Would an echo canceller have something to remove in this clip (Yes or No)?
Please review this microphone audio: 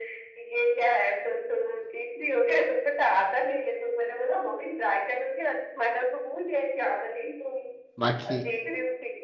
Yes